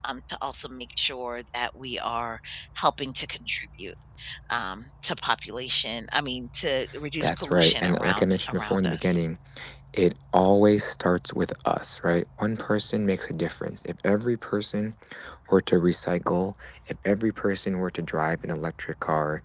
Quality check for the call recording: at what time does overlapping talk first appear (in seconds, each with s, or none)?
7.2 s